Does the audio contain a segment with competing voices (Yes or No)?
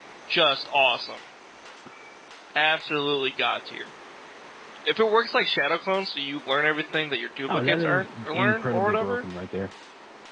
Yes